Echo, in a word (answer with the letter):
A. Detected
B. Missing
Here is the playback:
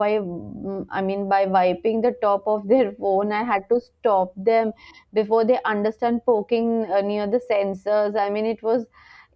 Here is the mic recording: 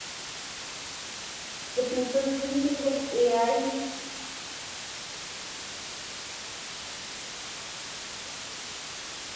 B